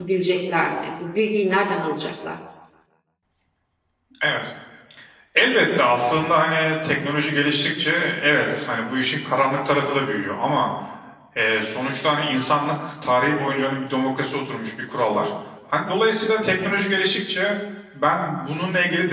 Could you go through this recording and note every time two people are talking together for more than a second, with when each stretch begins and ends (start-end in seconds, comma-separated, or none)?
none